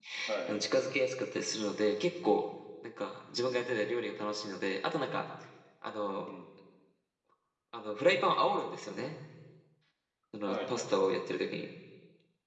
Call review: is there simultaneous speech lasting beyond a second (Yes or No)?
No